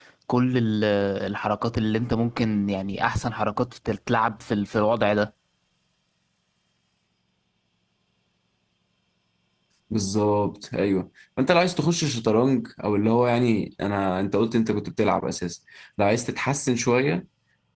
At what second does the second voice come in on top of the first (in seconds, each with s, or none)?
none